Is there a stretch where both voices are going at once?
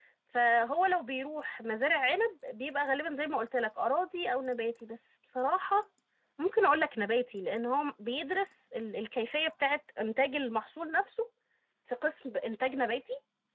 No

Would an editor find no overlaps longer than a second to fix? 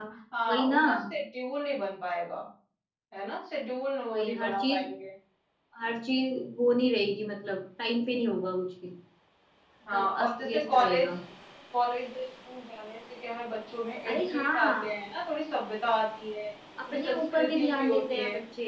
No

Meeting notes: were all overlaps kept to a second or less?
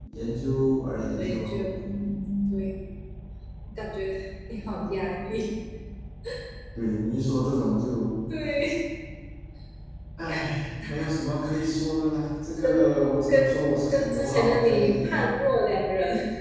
No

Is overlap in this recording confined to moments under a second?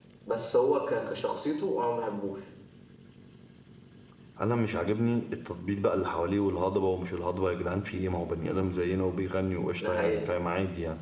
Yes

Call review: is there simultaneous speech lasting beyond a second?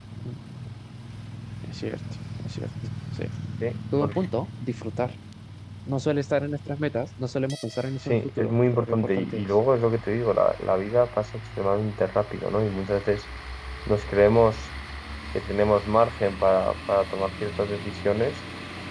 Yes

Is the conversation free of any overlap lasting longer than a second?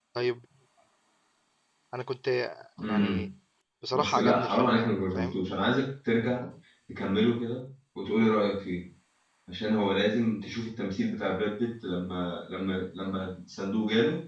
No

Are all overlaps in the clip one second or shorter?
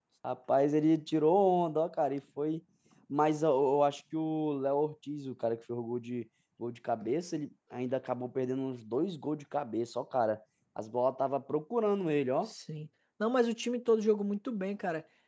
Yes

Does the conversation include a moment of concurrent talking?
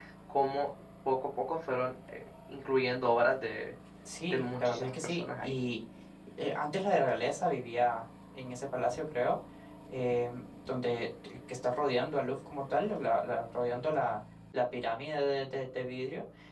Yes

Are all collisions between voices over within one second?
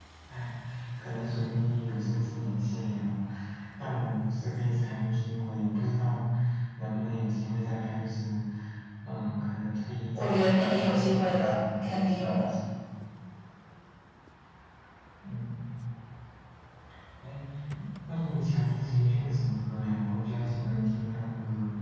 No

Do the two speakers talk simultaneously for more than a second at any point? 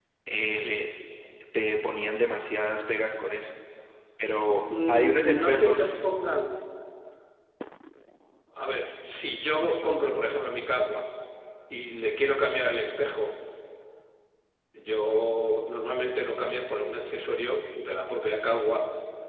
Yes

